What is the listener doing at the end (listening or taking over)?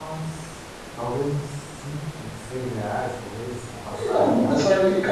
taking over